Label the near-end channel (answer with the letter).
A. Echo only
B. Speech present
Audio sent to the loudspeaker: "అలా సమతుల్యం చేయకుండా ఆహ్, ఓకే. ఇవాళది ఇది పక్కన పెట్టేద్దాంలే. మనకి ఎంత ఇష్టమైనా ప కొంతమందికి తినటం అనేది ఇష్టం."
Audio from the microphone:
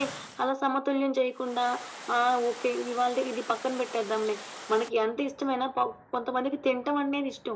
A